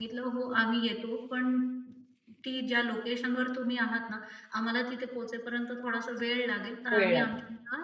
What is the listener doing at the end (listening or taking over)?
listening